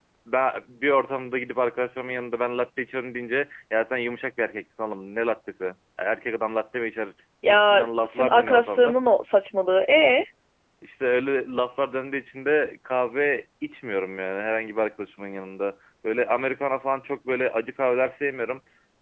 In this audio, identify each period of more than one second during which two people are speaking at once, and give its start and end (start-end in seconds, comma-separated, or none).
7.5-9.0